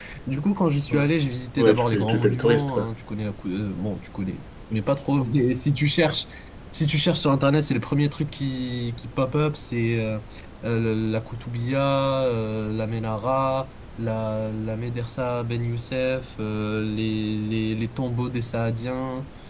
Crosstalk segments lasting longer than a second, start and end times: 1.6-2.9

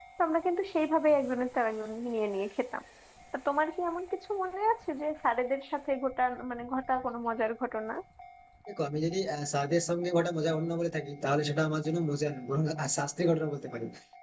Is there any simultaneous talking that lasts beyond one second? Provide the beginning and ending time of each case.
none

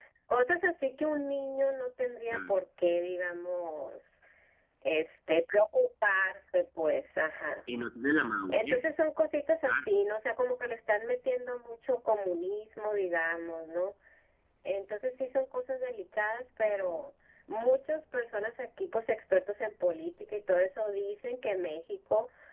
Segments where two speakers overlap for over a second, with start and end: none

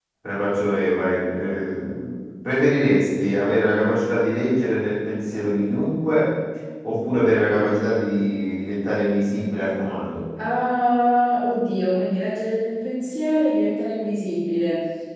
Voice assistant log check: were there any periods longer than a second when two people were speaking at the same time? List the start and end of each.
none

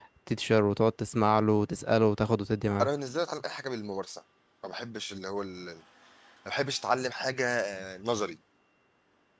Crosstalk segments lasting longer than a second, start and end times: none

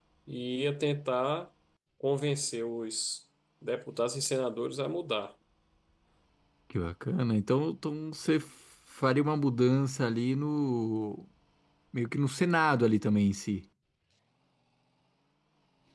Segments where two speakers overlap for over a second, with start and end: none

